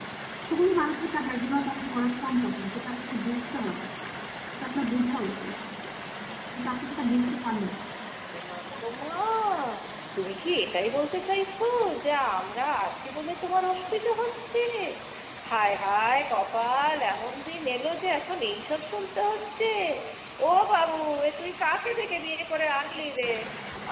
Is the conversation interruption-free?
Yes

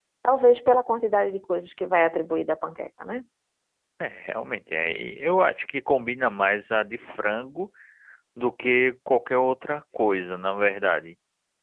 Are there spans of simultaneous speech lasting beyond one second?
No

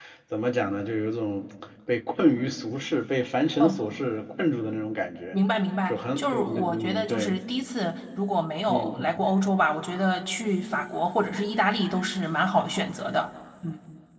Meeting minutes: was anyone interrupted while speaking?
Yes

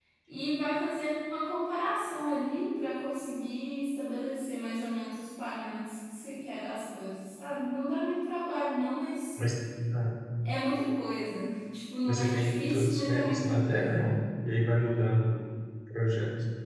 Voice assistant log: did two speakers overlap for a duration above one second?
Yes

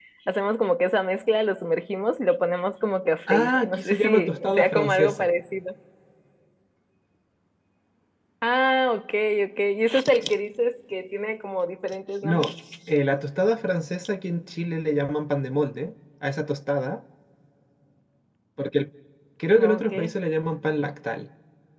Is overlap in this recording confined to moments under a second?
No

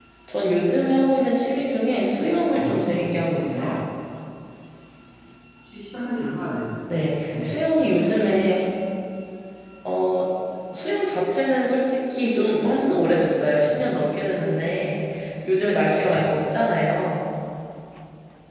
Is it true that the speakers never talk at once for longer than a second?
No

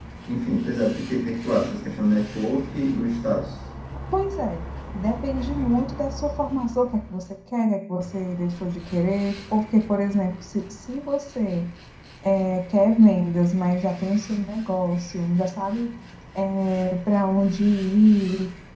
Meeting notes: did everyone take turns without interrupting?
Yes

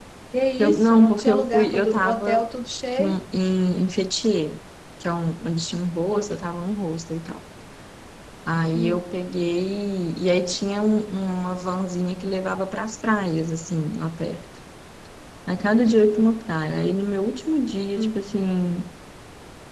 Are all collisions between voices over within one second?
No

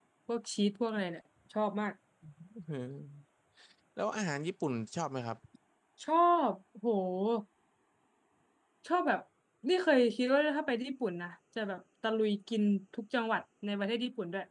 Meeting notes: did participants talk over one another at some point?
No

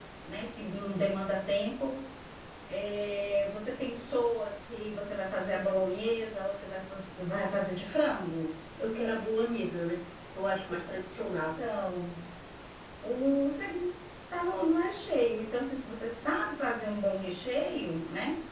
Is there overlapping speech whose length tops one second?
No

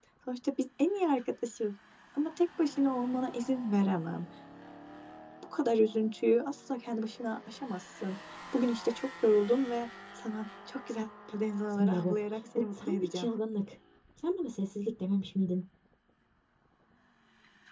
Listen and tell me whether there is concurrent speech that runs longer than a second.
Yes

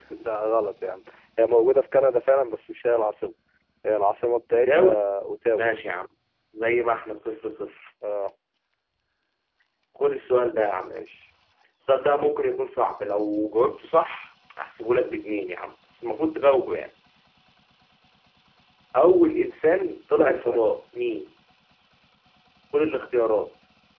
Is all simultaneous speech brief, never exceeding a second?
Yes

